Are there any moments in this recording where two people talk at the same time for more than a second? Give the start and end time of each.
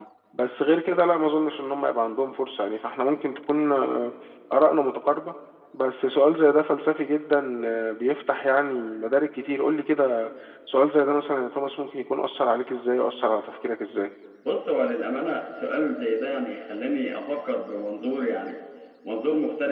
none

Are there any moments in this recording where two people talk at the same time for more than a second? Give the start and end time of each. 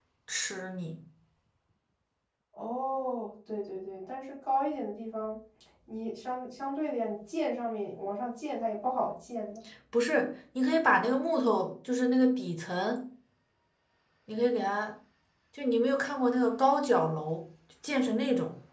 none

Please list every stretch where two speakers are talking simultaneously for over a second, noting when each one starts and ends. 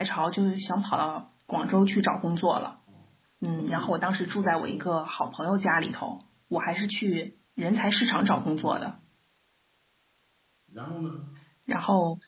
3.6-4.9

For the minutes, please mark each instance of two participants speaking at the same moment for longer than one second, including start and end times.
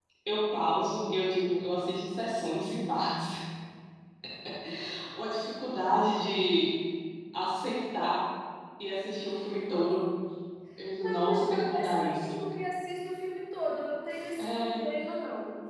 11.0-12.4

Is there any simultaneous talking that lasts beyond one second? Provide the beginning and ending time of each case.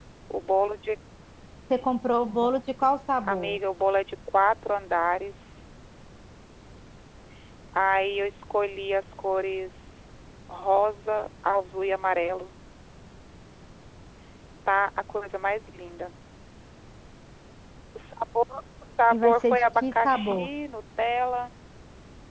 19.1-20.5

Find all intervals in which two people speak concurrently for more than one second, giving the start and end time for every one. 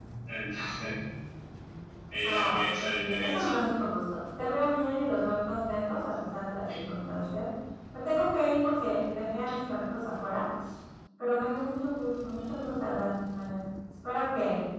2.2-3.5

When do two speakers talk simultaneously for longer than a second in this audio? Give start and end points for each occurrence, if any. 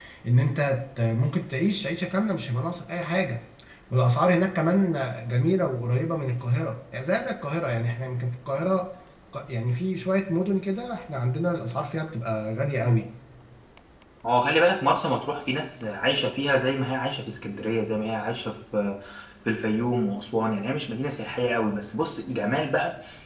none

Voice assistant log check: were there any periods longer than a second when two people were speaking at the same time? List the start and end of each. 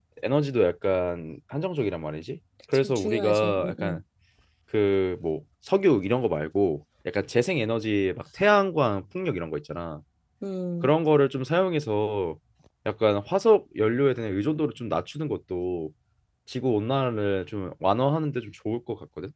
2.7-4.0

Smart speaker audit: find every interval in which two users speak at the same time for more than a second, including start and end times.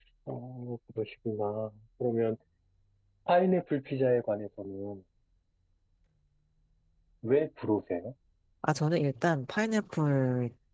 none

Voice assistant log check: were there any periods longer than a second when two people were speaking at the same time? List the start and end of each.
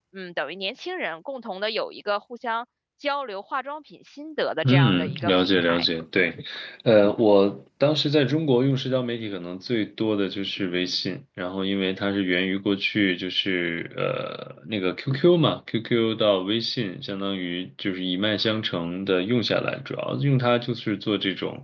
4.6-5.8

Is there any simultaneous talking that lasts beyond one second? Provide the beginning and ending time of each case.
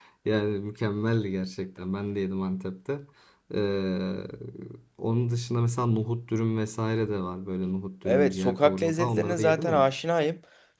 8.0-9.8

